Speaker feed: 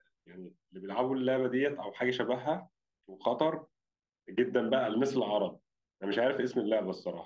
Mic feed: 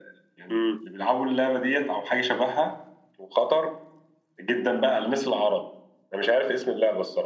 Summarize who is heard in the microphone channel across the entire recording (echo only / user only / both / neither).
both